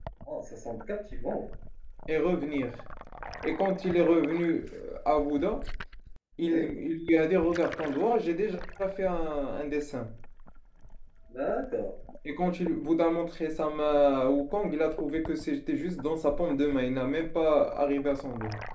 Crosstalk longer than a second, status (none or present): none